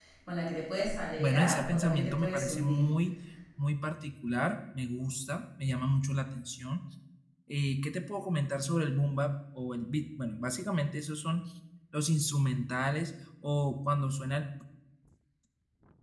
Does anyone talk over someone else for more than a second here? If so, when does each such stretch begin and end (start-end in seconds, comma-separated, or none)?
1.2-3.0